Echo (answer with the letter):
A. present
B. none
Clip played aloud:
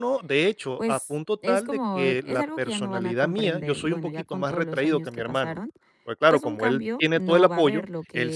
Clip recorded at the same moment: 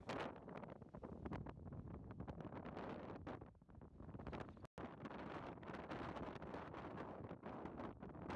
B